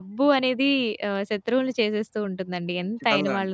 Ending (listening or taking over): taking over